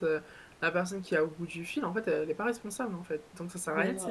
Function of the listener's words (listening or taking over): taking over